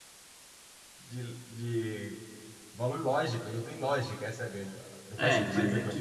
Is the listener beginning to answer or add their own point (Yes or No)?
Yes